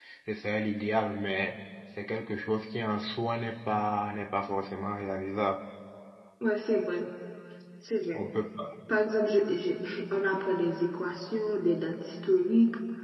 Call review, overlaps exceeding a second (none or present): none